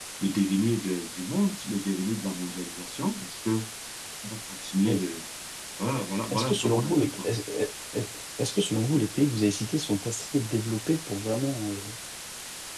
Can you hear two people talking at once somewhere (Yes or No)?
Yes